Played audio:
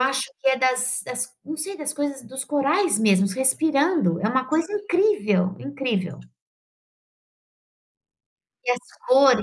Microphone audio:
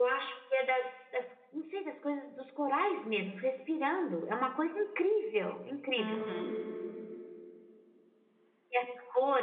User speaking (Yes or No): Yes